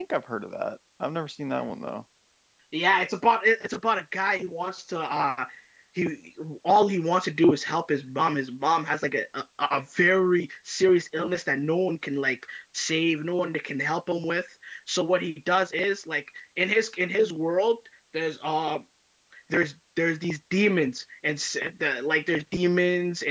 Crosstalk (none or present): none